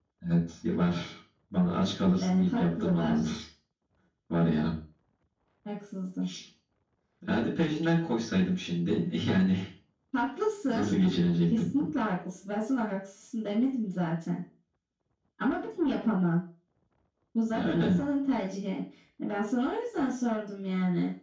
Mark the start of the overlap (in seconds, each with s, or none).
2.2 s